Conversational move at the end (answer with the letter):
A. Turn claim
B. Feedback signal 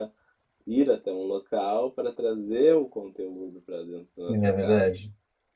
A